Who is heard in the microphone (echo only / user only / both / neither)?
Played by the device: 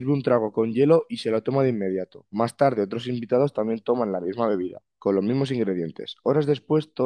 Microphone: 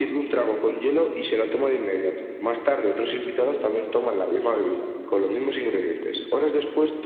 echo only